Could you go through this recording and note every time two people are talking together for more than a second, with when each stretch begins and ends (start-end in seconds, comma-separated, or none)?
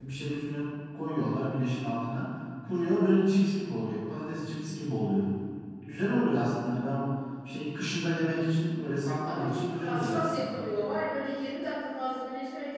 9.3-10.6